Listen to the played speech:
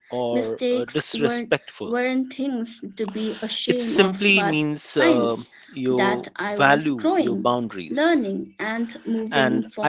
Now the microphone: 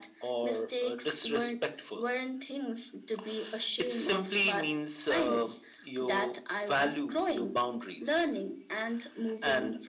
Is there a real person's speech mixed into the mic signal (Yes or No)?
No